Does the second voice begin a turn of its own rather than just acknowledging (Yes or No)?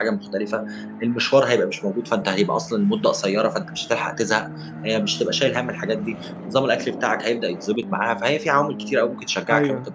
Yes